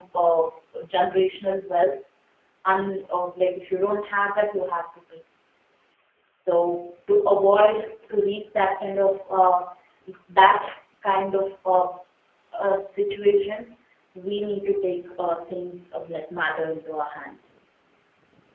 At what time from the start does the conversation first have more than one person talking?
none

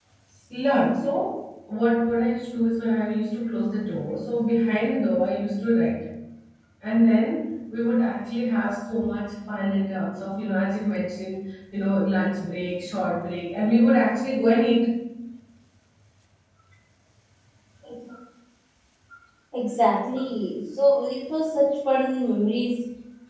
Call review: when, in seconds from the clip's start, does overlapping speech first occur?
none

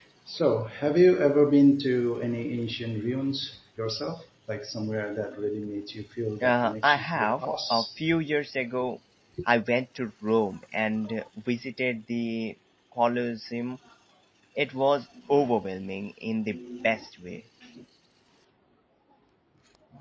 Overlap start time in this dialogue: 6 s

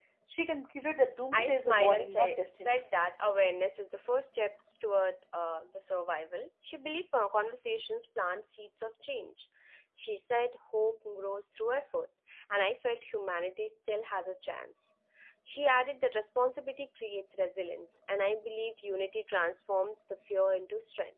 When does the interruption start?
1 s

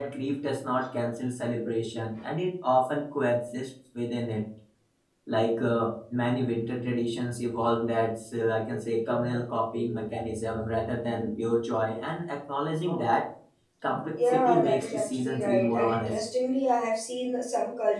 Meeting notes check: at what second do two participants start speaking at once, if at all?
14 s

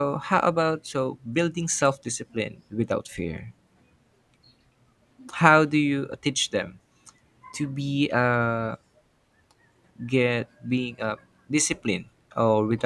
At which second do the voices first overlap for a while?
none

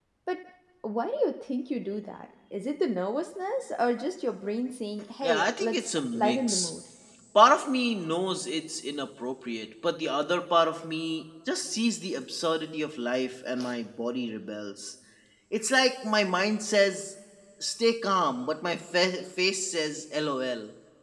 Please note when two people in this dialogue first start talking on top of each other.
5 s

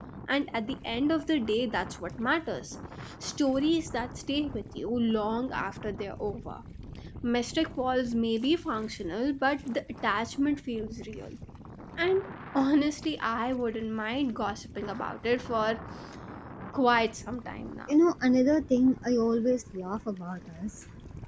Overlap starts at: none

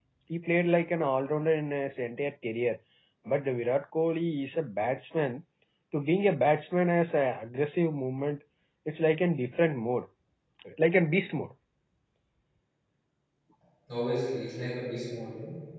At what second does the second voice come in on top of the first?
none

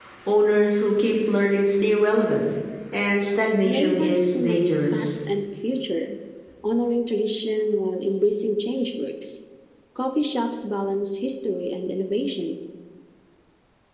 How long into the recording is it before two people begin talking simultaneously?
4 s

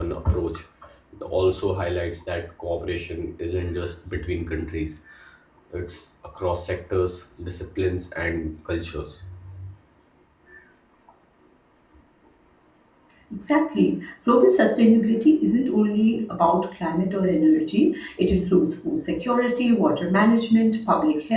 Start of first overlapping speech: none

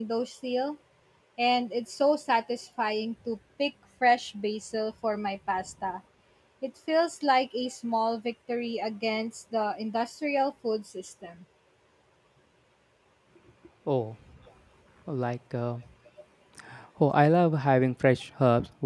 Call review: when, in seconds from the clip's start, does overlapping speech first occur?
none

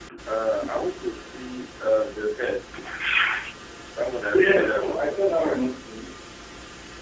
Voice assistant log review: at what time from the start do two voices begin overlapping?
4 s

